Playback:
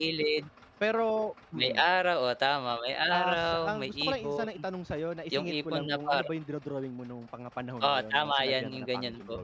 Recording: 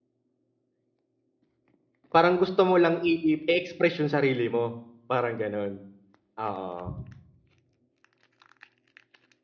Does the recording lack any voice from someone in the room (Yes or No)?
No